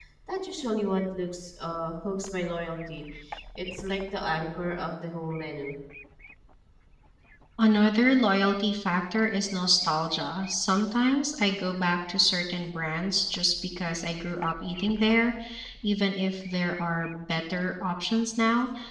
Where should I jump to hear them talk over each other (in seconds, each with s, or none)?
none